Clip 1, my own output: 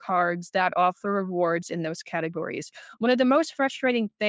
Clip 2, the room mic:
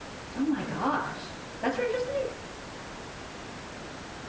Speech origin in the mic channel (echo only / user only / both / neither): user only